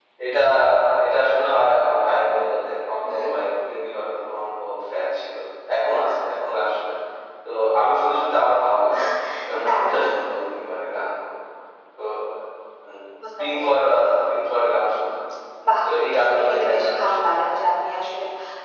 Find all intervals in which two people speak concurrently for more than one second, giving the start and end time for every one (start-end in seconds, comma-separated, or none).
15.8-17.6